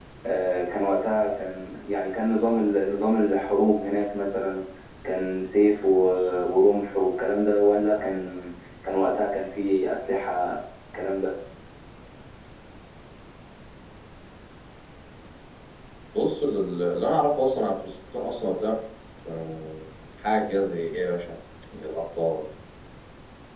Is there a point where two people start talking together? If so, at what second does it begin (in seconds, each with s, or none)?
none